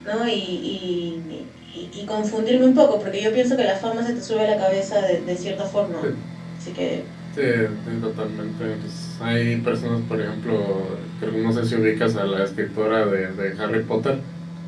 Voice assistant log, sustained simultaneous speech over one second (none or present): none